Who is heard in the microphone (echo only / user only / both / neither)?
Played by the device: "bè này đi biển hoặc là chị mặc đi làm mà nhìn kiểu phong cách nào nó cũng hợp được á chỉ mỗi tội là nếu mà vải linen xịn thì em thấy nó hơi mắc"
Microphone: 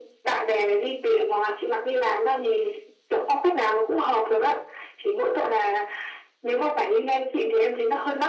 echo only